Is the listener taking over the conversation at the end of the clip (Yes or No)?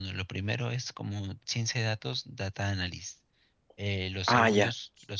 No